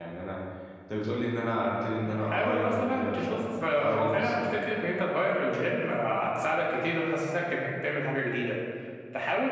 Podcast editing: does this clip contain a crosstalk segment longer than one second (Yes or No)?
Yes